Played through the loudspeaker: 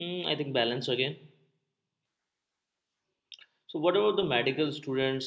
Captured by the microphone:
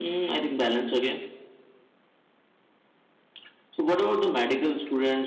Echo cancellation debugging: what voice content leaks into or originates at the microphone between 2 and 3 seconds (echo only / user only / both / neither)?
neither